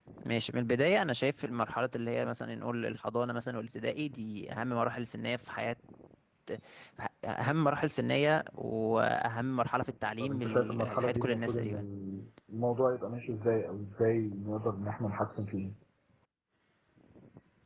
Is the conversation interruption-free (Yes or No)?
No